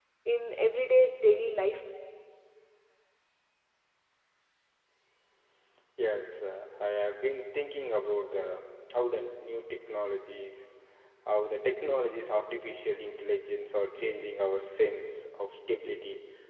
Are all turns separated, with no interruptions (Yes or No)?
Yes